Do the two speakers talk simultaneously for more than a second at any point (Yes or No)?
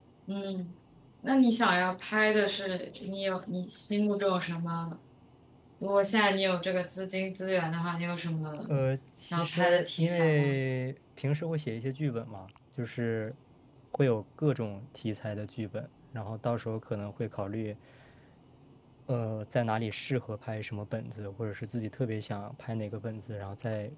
Yes